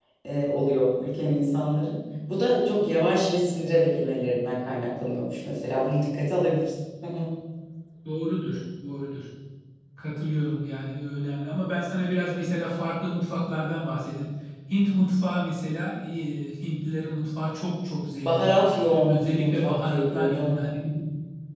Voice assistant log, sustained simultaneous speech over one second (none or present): present